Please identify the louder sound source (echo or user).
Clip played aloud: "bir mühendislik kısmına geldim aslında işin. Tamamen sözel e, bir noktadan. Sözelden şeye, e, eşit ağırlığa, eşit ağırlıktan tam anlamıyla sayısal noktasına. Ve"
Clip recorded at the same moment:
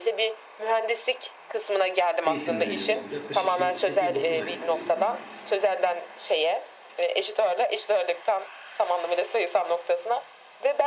echo